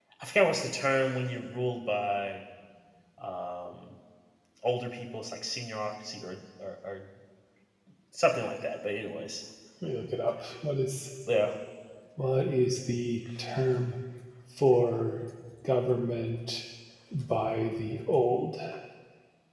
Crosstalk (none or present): none